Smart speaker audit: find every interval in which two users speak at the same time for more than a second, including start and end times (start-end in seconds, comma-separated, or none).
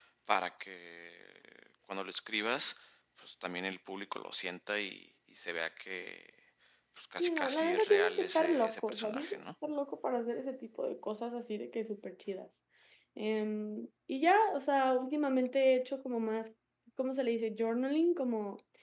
7.2-9.5